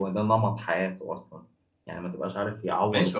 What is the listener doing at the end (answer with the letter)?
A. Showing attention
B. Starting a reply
B